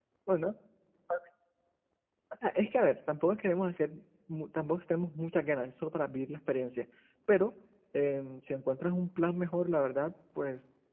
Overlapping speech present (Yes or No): No